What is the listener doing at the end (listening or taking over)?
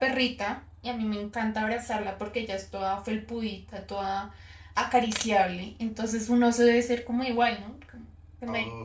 taking over